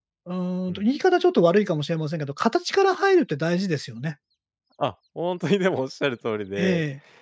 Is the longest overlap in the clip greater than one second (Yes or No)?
No